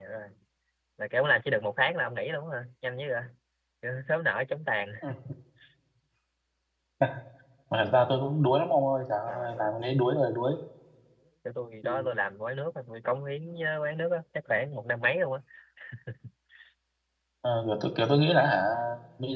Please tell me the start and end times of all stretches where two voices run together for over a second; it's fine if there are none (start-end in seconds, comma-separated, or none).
none